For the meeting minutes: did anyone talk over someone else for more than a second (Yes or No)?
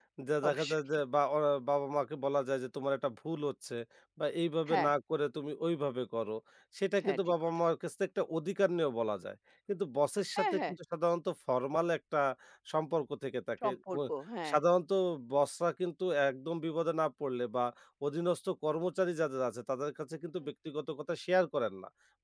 No